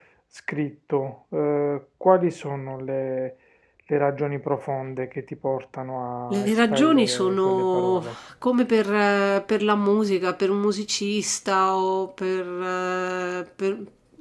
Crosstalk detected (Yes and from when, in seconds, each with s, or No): Yes, from 6.3 s